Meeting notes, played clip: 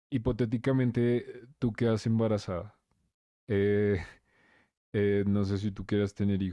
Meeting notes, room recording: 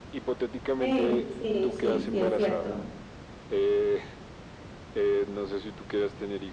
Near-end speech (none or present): present